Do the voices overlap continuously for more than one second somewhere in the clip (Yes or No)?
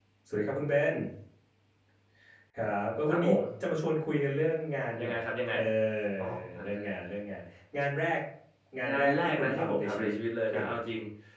Yes